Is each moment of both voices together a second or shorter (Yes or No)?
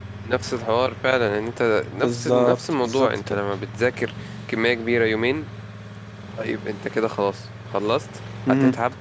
No